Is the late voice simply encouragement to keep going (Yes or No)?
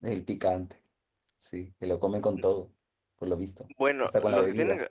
No